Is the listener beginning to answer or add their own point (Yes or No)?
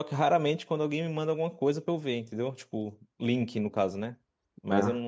No